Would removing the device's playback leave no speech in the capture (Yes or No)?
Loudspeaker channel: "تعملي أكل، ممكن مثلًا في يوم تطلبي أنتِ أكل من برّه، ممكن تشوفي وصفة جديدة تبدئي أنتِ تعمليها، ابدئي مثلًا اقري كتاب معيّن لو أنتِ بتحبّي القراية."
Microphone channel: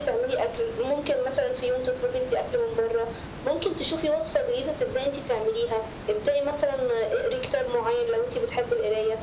Yes